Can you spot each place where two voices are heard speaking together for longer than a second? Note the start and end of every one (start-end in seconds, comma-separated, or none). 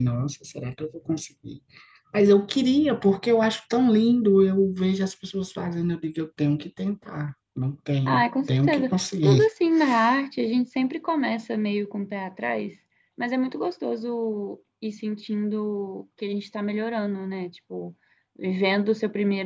8.1-9.5